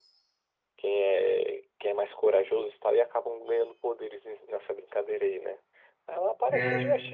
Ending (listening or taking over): listening